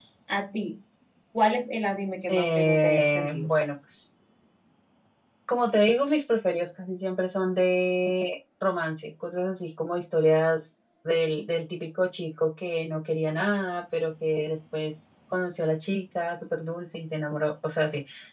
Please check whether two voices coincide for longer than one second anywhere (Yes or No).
Yes